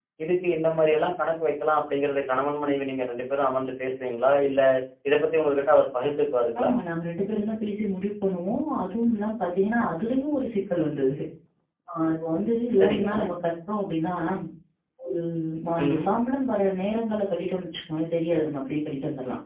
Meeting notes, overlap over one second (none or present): none